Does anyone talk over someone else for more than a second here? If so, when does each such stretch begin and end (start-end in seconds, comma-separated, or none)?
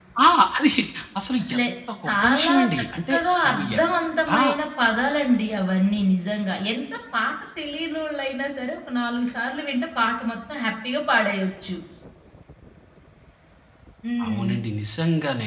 2.0-3.8